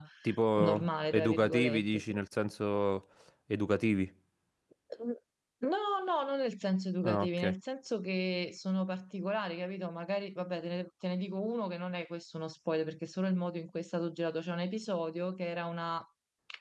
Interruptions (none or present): present